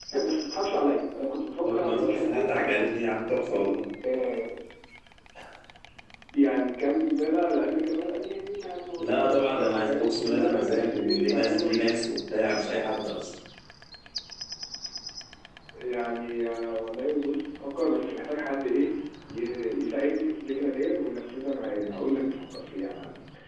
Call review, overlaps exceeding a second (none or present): present